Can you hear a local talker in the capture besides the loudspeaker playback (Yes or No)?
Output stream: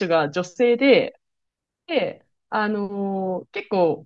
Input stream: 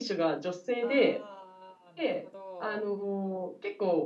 Yes